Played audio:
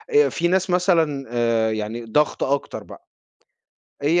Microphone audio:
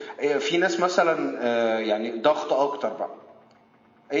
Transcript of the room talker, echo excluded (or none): none